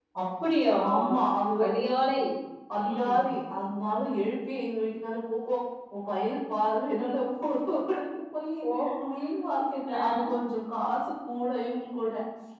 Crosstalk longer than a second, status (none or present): none